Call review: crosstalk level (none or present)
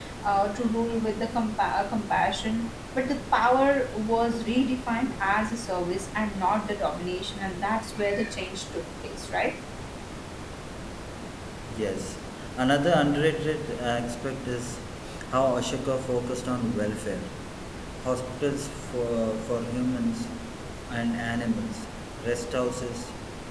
none